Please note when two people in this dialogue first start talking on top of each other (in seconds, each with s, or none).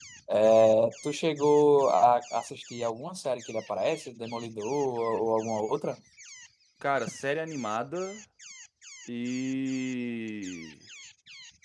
none